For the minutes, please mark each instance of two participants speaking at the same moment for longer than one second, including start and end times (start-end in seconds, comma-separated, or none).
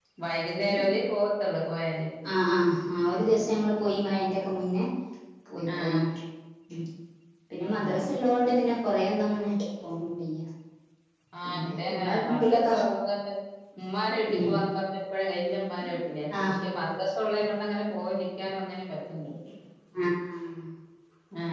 11.4-12.7